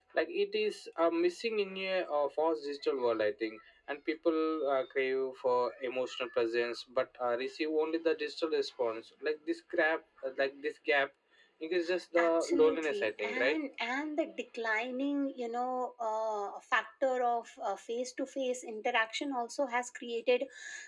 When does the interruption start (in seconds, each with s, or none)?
12.2 s